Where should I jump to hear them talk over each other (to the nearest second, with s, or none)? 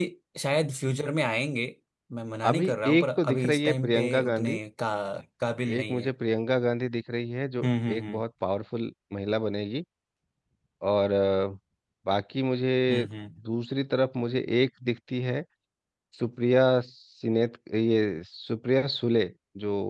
3 s